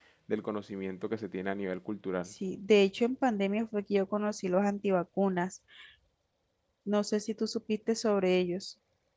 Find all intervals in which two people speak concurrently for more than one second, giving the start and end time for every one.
none

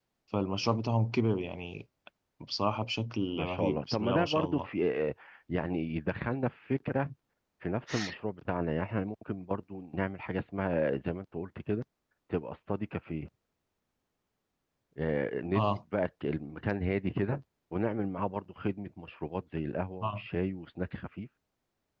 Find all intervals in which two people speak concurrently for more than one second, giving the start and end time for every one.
3.3-4.7

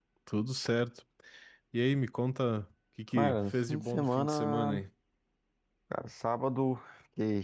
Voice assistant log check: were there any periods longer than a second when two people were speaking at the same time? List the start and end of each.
3.1-4.8

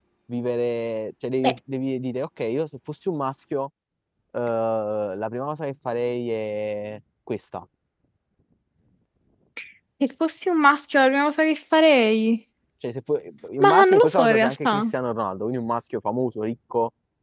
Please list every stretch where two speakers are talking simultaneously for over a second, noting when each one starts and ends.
13.6-14.8

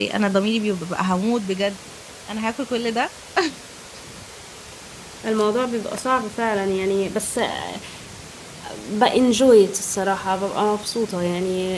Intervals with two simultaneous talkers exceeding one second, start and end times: none

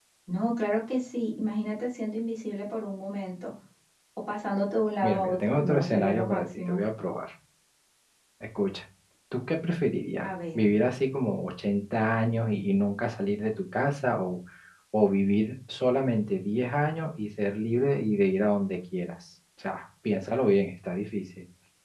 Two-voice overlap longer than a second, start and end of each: 5.0-6.8

